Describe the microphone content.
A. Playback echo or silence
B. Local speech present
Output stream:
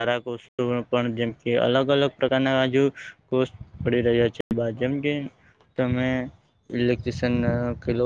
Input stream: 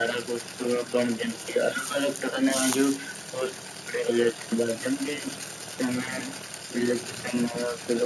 A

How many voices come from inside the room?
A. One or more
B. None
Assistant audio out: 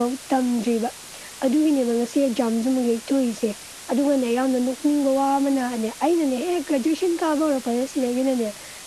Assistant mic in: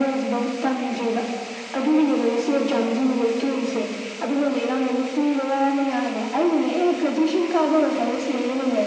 B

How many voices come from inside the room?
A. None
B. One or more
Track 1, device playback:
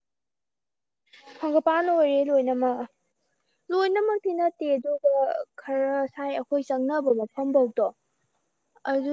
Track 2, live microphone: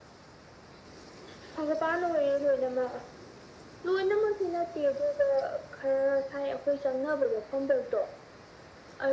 A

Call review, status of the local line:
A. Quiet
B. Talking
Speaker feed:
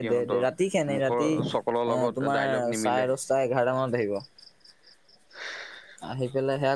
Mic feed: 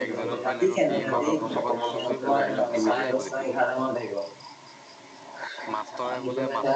B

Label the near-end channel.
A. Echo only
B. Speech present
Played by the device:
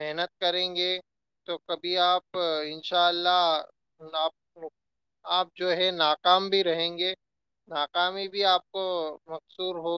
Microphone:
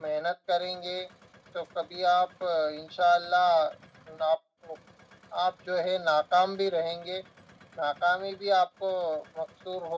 A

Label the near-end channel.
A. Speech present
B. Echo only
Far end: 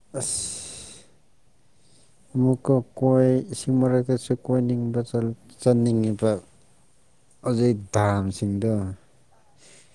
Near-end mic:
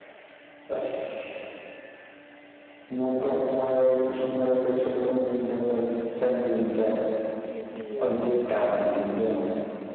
A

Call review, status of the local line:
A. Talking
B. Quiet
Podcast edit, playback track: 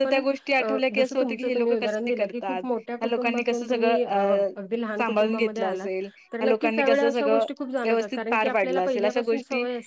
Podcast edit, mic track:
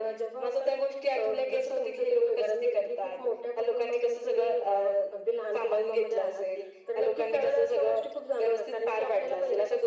B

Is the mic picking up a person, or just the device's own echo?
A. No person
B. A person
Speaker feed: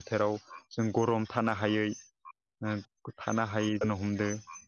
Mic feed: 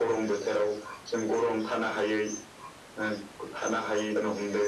A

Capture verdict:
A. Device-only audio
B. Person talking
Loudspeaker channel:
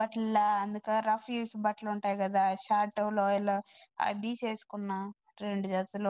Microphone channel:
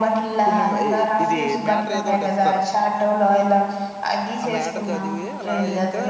B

